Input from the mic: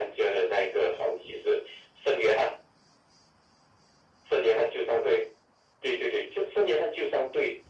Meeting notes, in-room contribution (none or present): none